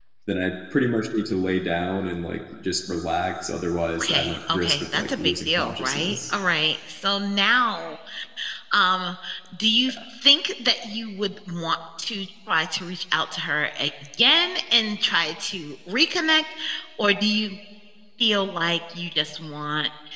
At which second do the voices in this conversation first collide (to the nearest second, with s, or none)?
4 s